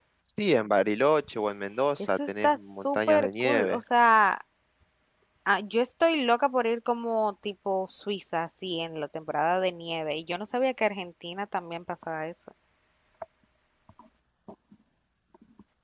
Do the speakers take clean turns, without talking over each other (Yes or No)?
No